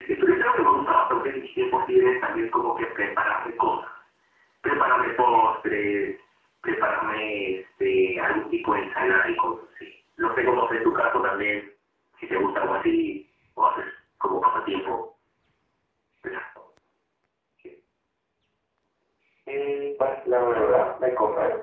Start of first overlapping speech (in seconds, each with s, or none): none